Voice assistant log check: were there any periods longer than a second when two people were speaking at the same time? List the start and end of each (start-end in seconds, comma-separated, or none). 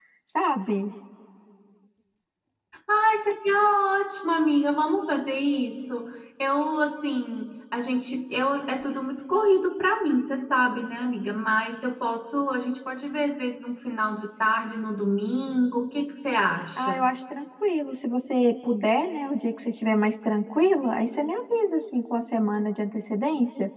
none